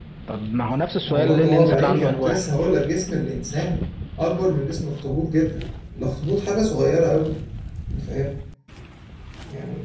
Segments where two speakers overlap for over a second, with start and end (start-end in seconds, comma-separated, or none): 1.0-2.4